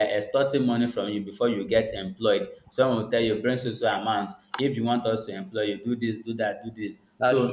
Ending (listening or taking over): listening